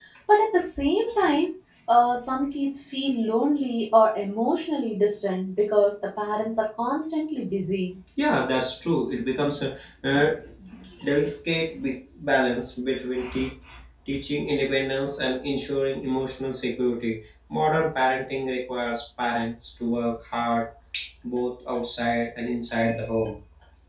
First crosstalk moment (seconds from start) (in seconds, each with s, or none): none